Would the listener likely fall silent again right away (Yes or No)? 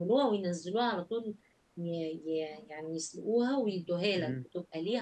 No